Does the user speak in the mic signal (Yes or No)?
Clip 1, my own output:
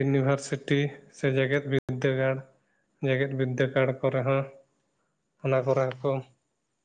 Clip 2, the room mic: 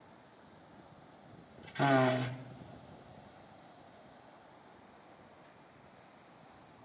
Yes